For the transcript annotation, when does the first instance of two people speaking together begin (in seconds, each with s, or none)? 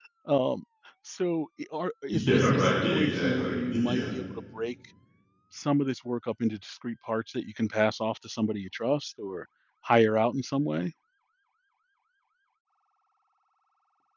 2.1 s